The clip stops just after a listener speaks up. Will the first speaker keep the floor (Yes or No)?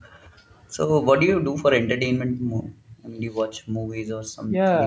No